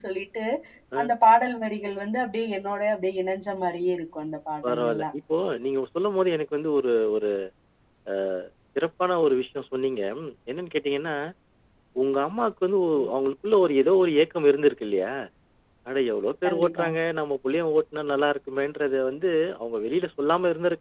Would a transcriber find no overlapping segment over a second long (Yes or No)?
Yes